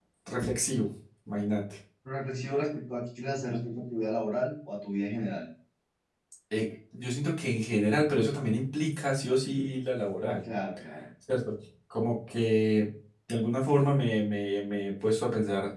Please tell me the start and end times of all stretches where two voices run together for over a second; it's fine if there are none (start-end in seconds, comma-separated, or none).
none